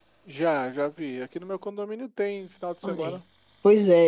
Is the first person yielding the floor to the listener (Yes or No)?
Yes